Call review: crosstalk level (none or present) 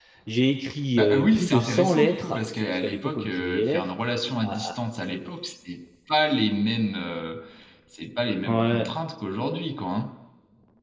present